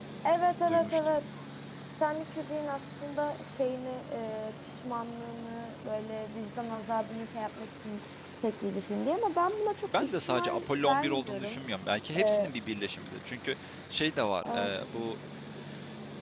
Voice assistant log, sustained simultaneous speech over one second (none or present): present